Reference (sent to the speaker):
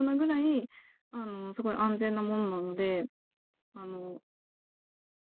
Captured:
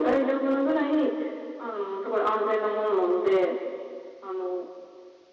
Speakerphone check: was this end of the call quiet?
Yes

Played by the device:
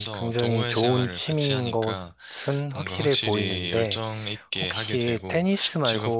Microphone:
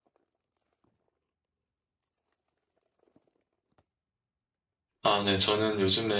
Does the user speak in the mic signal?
Yes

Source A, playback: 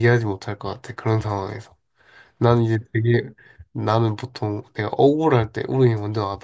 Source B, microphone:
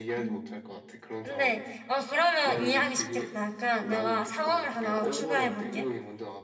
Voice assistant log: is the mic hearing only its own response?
No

